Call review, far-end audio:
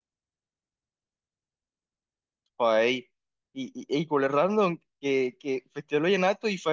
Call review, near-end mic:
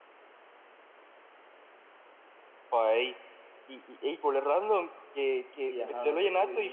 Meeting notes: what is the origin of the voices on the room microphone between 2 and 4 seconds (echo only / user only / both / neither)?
echo only